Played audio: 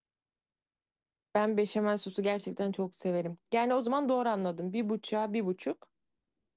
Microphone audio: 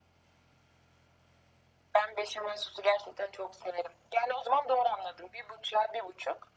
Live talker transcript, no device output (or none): none